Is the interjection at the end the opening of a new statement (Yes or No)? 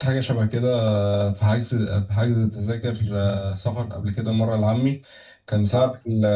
No